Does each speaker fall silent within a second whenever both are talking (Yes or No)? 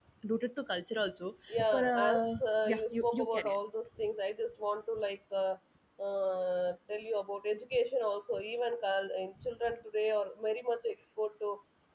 No